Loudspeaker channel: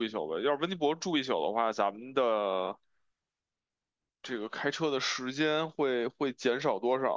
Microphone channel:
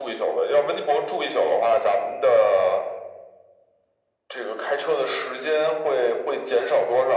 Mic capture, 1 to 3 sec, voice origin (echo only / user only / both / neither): echo only